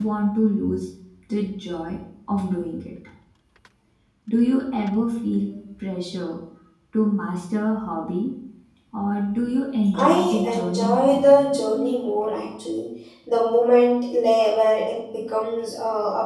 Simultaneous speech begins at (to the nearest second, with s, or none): 10 s